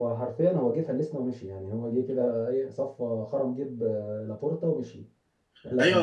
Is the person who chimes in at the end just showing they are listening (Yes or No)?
No